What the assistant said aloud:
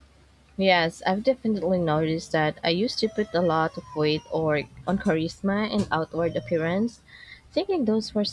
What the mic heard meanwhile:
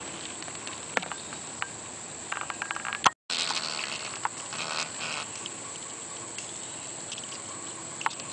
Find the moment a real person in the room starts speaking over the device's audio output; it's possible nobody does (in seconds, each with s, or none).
none